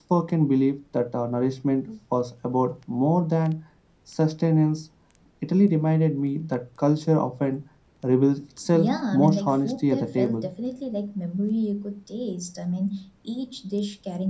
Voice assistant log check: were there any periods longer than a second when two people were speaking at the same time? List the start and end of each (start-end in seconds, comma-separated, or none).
8.7-10.5